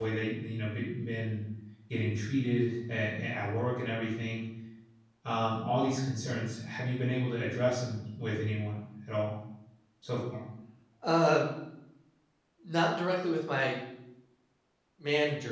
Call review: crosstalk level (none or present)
none